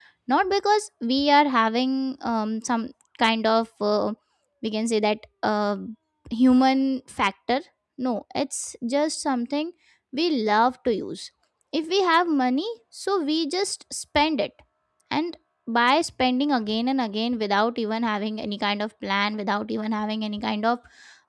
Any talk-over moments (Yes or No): No